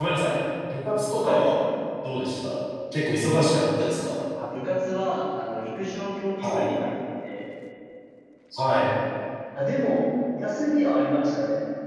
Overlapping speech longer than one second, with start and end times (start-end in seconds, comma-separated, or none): none